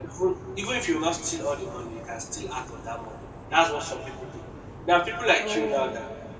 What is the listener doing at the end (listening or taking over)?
listening